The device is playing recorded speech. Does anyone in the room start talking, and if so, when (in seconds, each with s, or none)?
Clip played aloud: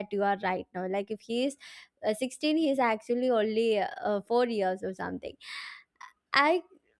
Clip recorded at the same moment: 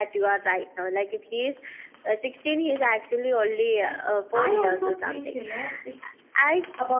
3.8 s